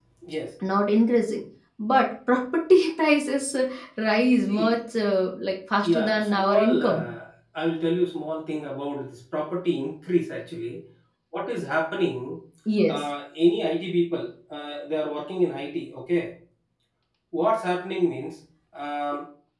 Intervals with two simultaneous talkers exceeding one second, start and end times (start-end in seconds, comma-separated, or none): 5.8-7.1